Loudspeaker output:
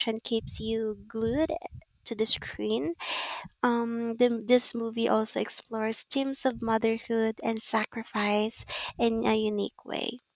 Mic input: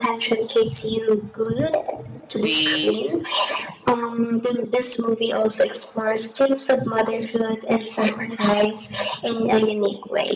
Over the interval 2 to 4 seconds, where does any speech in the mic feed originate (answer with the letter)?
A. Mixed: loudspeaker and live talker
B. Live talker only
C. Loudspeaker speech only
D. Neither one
A